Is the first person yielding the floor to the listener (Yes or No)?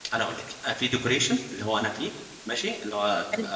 No